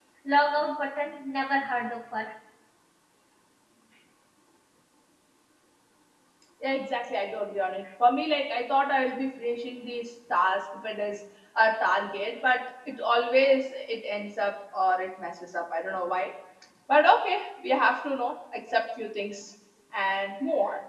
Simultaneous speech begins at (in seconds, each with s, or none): none